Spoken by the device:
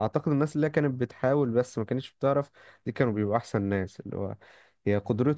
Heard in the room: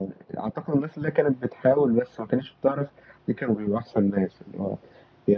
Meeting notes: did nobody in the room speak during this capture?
Yes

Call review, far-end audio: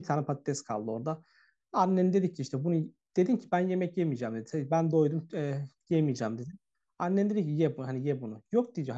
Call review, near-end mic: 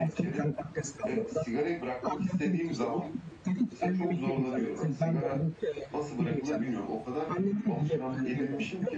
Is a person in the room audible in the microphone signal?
Yes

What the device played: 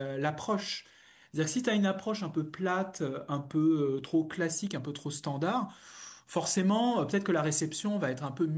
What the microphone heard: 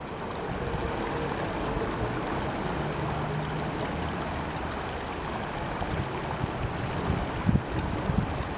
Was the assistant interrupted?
No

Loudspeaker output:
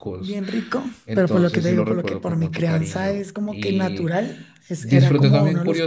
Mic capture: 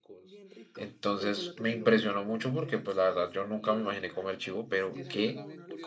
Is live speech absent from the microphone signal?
No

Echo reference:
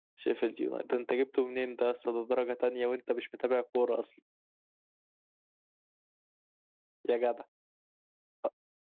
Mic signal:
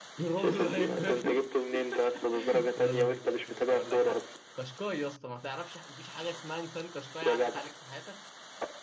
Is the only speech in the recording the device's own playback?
No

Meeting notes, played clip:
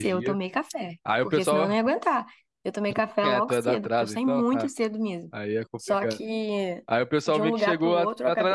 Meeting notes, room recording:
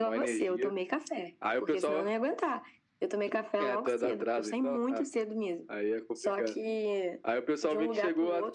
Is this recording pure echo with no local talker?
Yes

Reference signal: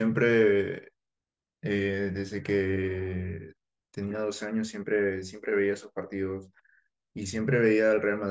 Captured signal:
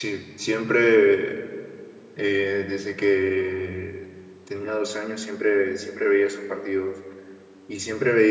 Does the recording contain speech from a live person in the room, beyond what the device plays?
No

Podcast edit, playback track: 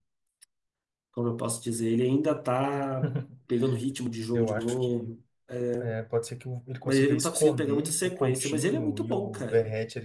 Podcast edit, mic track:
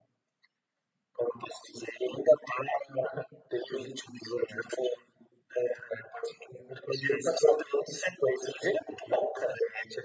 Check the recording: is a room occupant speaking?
No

